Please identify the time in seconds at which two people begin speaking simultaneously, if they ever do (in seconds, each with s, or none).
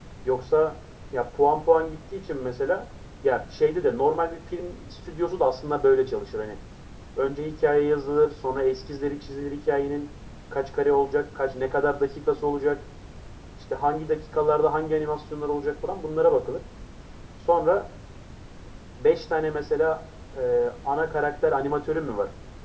none